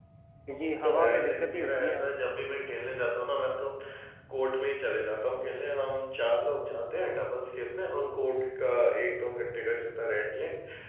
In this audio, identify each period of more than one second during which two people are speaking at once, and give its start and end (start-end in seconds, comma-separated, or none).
0.5-2.1